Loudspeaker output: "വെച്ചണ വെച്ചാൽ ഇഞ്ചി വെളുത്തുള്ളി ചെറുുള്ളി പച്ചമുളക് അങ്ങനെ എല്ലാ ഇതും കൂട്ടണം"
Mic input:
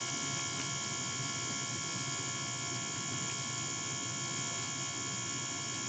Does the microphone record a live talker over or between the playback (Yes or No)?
No